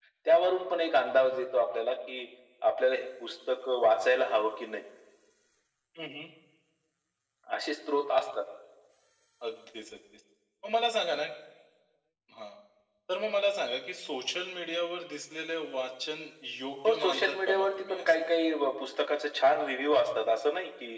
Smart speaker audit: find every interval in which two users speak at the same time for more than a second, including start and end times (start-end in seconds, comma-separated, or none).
16.9-18.1